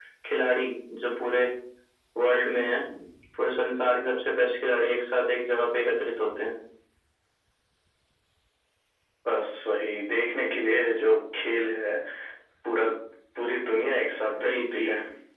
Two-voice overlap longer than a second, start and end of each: none

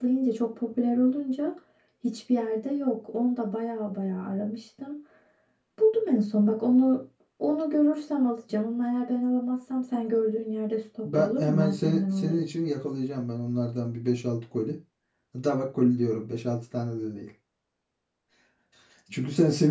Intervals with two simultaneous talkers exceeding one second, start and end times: 11.1-12.4

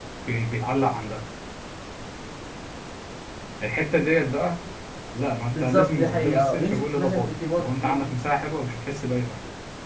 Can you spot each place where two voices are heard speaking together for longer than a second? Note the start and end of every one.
5.5-8.1

